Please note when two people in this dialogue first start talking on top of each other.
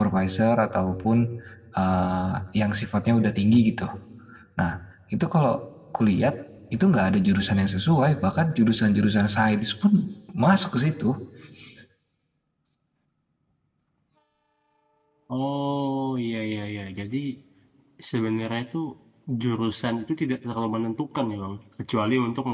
none

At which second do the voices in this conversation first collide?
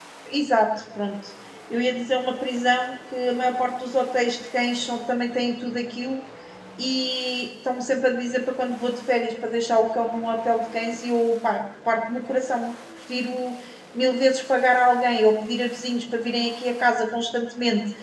none

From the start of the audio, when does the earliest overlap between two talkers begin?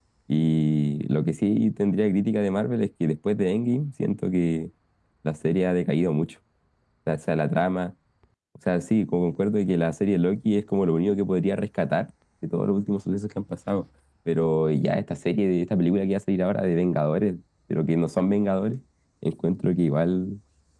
none

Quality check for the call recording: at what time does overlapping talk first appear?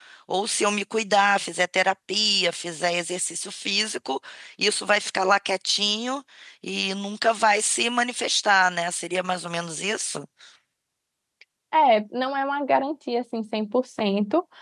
none

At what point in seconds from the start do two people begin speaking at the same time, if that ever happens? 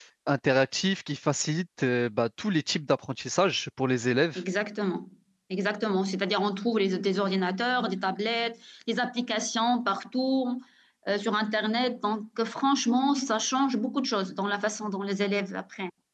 none

